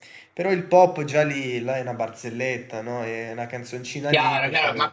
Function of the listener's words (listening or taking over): taking over